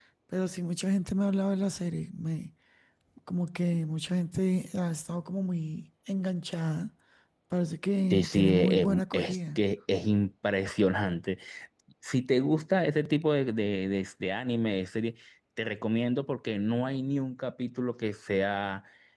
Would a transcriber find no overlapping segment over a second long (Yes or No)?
No